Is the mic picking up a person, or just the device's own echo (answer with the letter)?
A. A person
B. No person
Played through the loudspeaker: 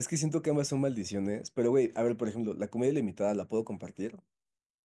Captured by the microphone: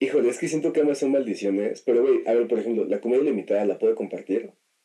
B